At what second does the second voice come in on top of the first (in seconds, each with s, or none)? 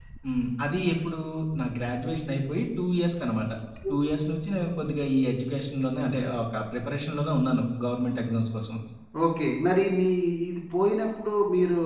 none